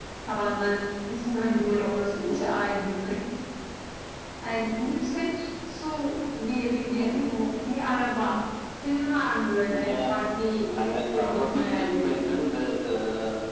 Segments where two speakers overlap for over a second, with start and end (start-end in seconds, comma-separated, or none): 10.9-12.3